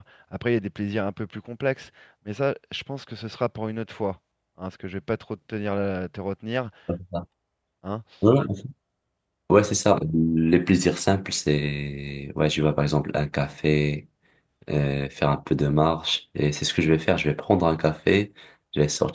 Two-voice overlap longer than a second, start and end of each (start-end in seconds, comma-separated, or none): none